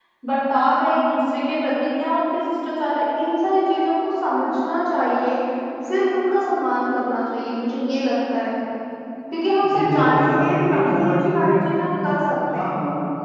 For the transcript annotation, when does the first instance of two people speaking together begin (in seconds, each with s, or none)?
9.7 s